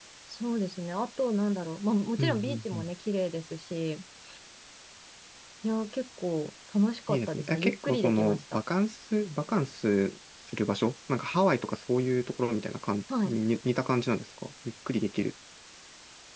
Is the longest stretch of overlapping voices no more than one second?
No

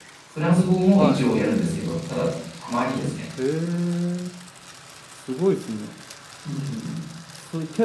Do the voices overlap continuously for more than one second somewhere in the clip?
No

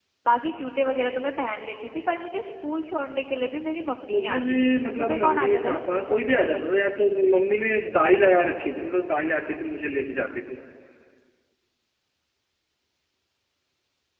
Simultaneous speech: Yes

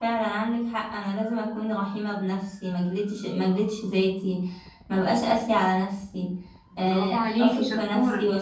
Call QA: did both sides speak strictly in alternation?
No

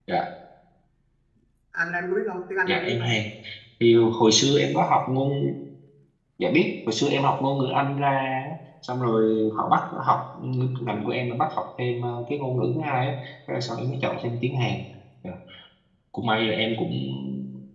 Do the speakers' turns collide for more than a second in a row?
No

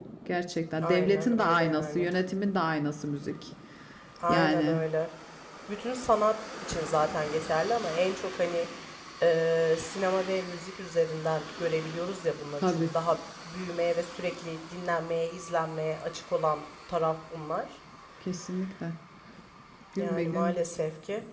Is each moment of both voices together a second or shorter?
No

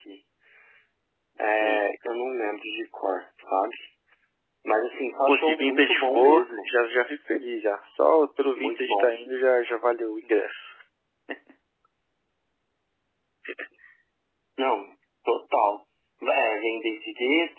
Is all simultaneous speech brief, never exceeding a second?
No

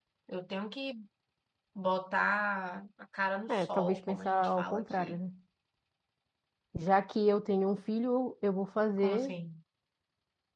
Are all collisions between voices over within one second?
No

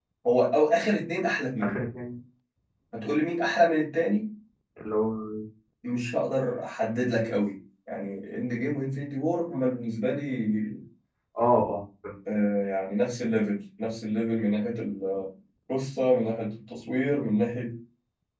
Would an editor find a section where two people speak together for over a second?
No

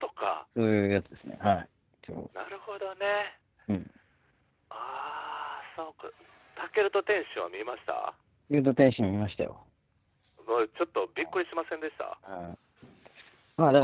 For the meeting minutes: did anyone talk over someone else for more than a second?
No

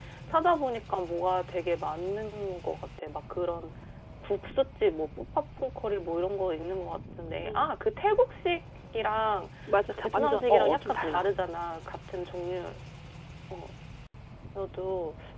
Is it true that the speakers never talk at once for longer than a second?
No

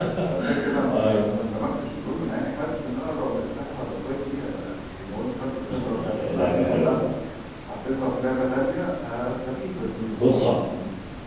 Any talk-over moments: Yes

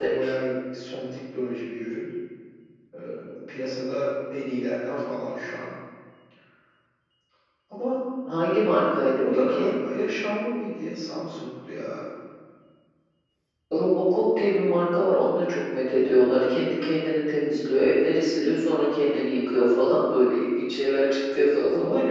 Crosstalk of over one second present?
No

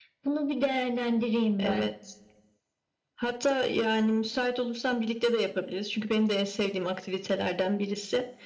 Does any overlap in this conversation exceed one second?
No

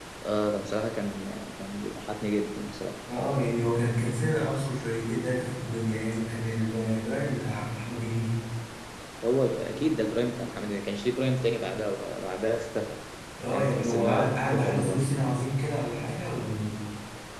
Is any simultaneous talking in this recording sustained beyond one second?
Yes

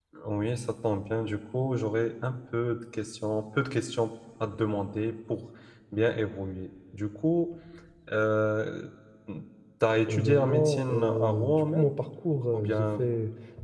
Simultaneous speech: Yes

